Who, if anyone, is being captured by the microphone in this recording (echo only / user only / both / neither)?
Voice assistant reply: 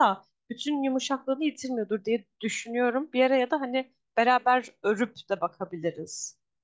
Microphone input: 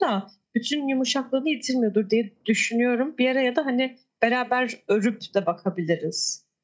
echo only